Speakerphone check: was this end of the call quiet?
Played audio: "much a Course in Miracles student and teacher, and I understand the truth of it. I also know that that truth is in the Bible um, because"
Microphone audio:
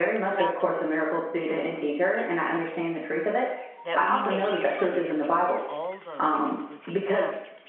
No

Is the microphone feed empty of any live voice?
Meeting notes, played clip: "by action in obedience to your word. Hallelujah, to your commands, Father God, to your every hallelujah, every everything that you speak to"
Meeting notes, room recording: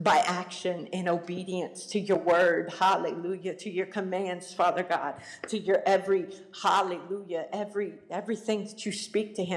Yes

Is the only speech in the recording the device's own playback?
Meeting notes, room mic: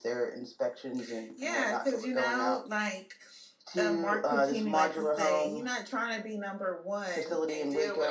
Yes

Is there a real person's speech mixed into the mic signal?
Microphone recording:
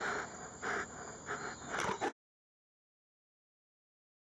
No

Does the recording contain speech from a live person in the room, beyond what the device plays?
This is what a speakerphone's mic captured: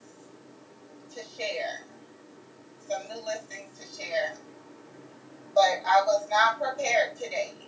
Yes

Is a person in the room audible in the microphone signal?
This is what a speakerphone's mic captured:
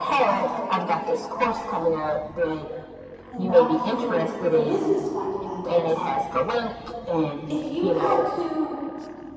Yes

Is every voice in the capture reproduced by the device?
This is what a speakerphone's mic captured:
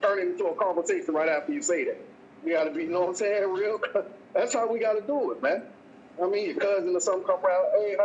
Yes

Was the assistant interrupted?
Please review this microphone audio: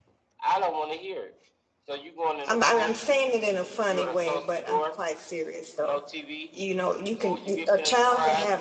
Yes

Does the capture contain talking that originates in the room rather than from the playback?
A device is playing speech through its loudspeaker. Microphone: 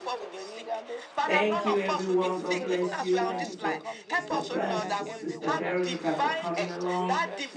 Yes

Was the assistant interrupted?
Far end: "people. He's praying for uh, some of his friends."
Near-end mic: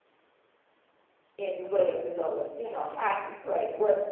Yes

